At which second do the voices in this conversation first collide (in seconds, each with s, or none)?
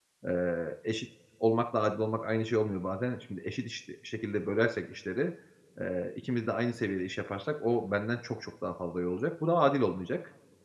none